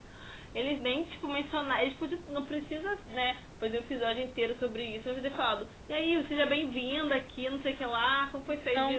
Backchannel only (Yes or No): Yes